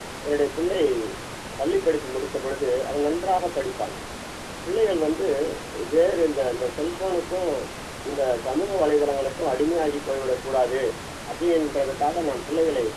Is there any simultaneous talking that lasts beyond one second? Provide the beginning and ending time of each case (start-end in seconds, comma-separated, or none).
none